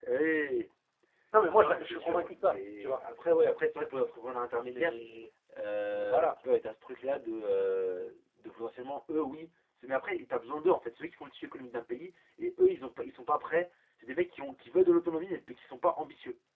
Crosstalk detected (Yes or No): Yes